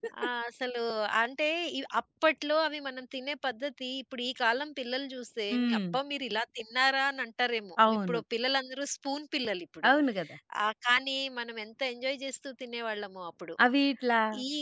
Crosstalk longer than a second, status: none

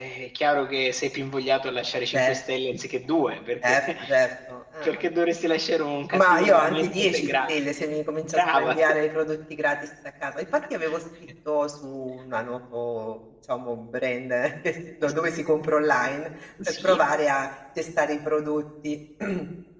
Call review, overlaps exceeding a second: present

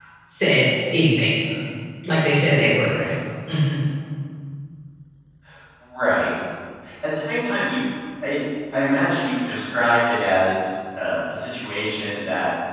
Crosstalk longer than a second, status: none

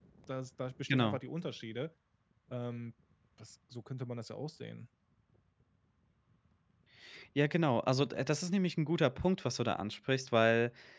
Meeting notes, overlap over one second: none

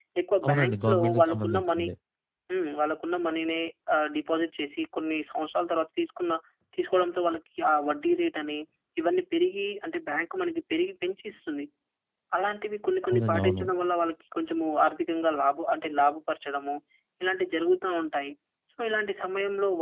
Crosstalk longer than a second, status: present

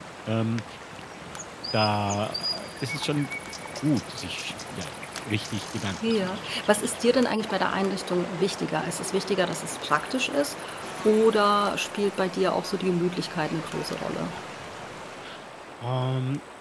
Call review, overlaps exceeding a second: none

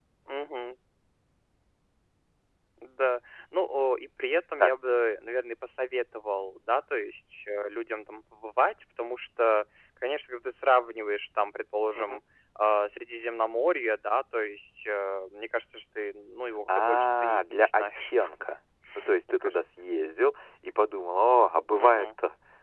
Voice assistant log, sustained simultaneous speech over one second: present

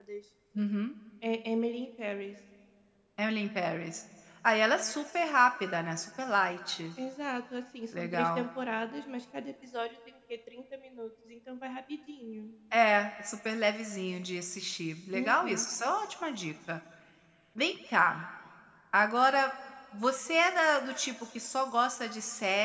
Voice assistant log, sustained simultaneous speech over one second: none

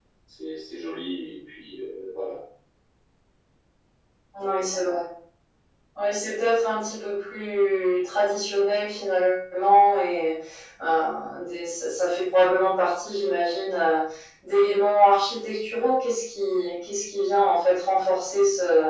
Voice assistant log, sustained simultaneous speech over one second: none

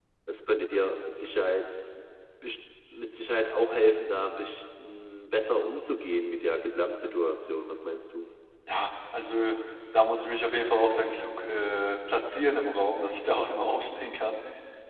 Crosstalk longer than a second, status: none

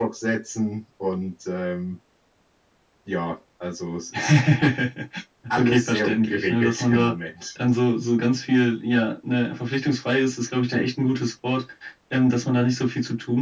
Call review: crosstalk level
present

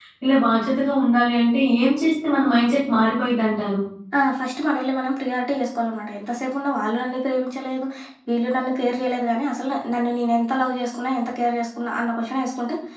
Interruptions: none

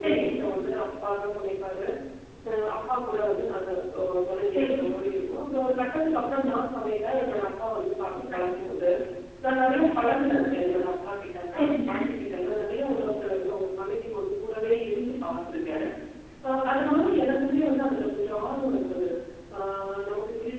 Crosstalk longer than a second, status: none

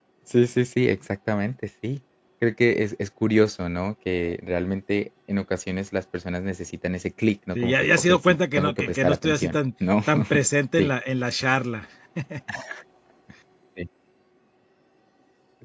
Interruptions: present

